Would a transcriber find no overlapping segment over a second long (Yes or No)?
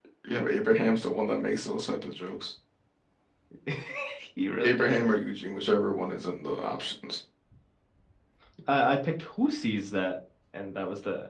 Yes